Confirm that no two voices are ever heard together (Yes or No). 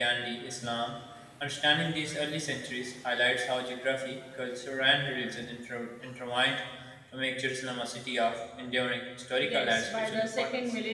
No